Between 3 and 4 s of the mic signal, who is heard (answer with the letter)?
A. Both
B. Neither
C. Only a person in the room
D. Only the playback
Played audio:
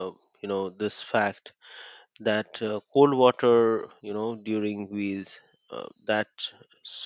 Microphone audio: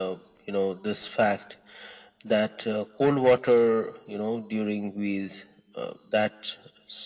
D